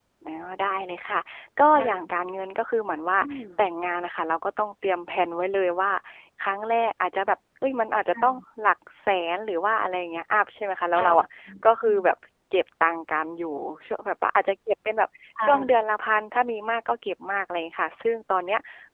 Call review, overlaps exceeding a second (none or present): none